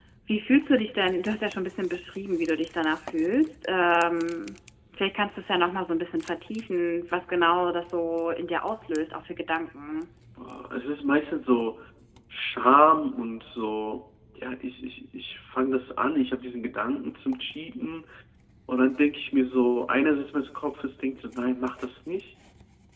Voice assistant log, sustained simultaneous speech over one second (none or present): none